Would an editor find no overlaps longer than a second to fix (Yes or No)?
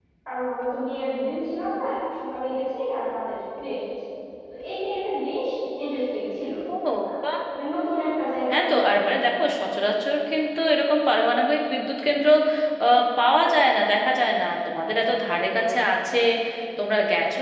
Yes